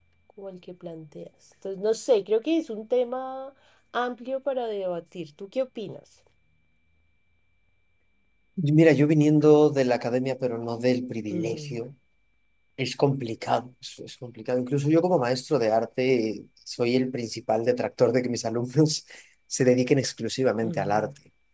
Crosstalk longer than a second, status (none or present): none